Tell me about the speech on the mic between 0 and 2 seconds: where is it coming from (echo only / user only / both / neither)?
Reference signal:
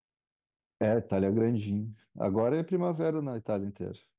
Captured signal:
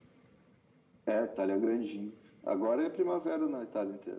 echo only